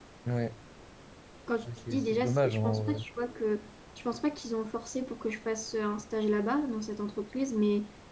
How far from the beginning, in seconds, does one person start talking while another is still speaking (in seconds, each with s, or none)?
1.6 s